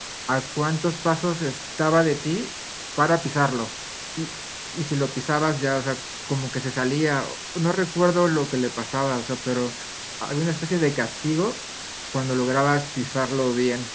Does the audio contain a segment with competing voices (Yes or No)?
No